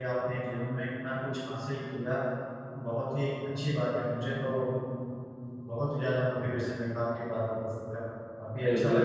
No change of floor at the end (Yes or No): No